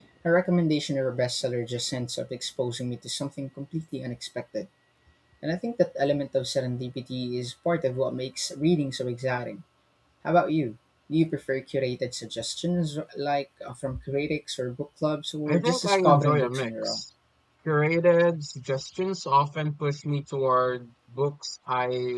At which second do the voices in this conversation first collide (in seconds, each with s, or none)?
15.5 s